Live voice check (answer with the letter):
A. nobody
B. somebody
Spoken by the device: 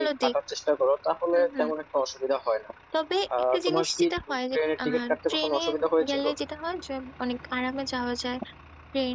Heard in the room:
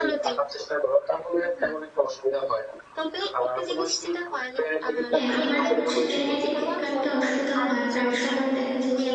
B